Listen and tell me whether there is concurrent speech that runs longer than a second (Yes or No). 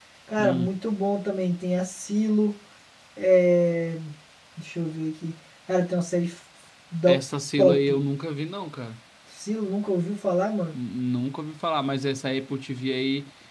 No